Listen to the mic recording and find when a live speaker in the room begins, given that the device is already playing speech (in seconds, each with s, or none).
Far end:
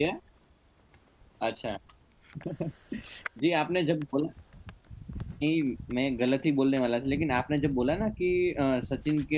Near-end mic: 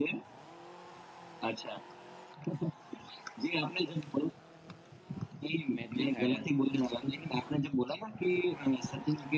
5.7 s